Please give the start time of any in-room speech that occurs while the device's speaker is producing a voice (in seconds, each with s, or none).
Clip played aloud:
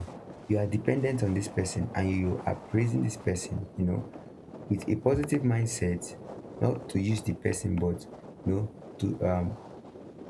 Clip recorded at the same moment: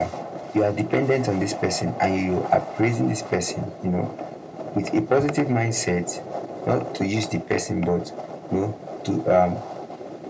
none